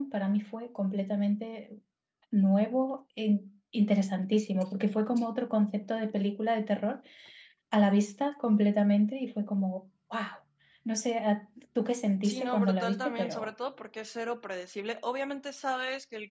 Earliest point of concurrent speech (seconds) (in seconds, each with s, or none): 12.2 s